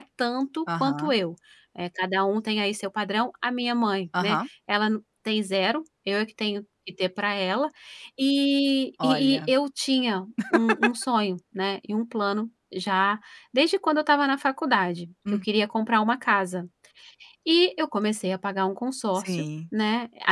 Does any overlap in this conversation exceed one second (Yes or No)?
No